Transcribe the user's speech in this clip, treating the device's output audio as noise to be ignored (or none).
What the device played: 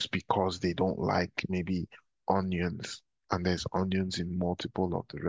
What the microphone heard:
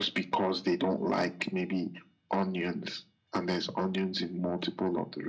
none